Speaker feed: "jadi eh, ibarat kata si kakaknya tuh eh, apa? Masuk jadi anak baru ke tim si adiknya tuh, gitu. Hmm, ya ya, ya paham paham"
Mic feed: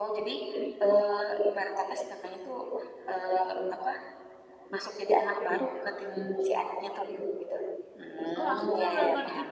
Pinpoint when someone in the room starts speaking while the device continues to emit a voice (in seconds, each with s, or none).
8.4 s